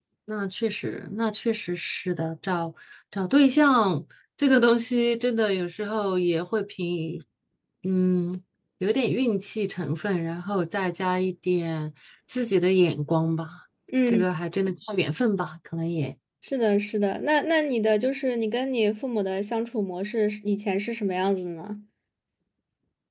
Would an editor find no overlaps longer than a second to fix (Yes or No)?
Yes